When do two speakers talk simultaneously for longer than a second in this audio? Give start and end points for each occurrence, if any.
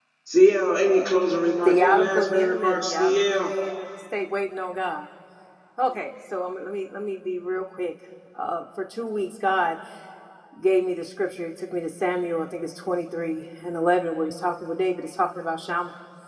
1.6-3.5

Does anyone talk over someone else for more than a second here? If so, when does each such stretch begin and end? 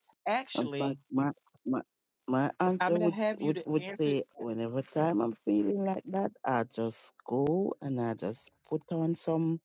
2.8-4.2

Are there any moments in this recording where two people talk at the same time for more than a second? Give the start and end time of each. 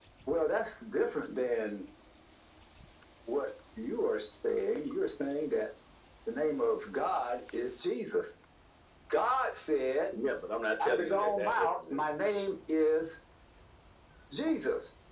10.8-12.0

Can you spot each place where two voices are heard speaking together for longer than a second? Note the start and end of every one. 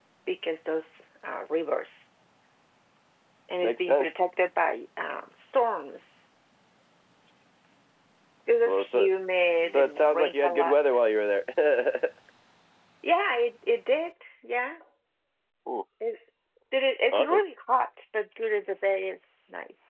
9.6-11.0

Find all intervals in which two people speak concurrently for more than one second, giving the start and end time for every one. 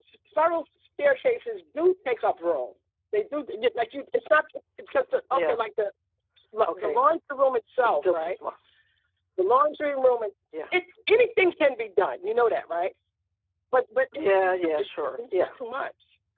14.2-15.6

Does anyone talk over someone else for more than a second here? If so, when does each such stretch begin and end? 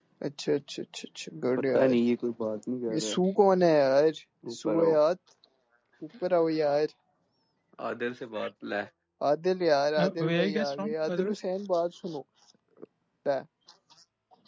10.0-11.3

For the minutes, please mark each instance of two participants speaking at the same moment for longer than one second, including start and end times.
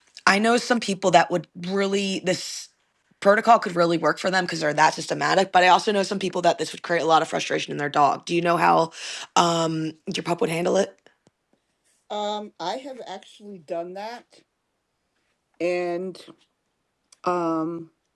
none

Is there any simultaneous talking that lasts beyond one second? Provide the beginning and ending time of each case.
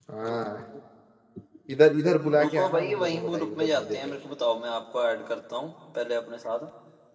2.4-4.1

